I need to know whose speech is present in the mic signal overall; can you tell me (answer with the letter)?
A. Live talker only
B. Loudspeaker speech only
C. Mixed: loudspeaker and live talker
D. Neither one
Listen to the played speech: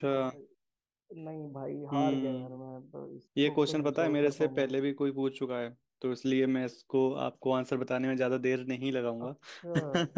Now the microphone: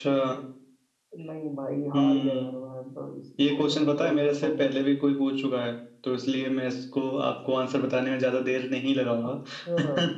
B